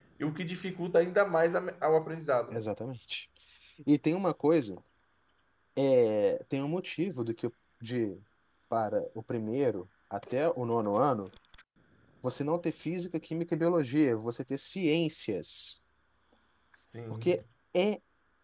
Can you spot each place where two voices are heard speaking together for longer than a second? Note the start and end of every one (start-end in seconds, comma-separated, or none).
none